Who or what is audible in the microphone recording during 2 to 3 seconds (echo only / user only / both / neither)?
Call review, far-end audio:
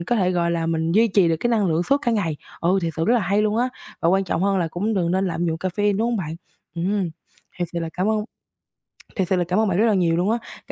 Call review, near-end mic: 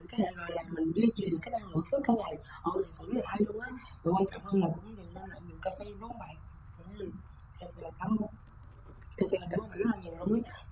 echo only